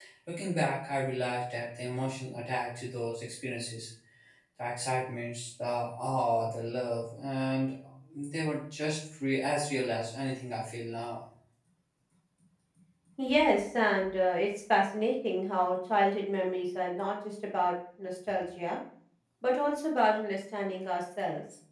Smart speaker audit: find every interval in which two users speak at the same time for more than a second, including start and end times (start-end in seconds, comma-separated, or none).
none